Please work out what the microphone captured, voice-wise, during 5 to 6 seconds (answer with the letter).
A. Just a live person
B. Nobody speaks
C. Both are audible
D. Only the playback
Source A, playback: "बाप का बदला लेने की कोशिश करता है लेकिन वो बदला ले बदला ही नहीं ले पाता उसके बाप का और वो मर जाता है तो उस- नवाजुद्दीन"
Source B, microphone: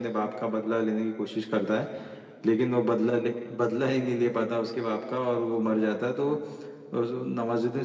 D